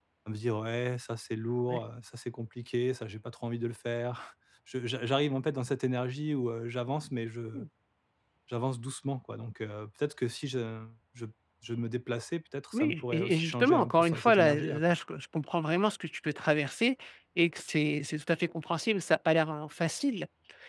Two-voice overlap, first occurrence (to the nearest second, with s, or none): 13 s